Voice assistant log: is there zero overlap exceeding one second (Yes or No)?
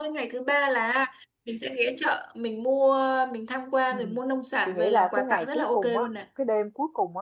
No